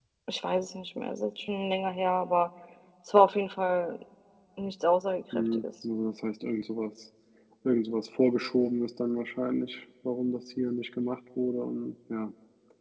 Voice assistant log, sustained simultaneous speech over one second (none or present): none